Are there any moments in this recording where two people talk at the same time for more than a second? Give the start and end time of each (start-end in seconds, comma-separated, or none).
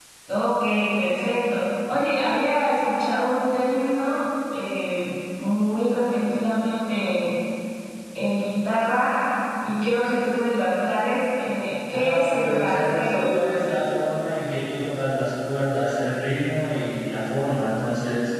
11.9-13.3